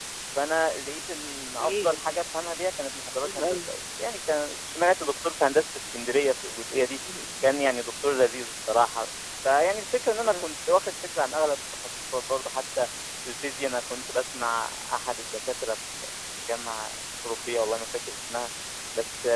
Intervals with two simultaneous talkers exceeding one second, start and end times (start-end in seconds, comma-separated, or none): none